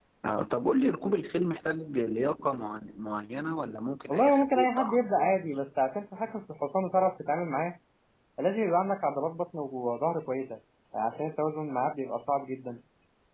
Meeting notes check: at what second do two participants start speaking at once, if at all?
4.1 s

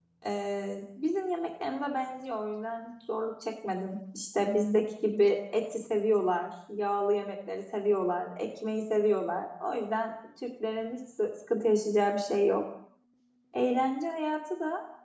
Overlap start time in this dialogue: none

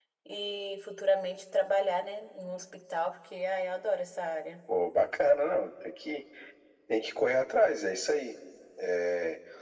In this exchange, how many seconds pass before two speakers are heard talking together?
none

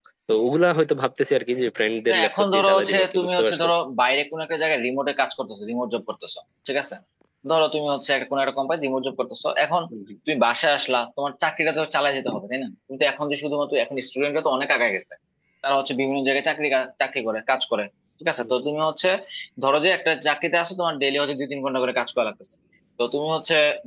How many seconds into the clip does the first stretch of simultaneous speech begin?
2.1 s

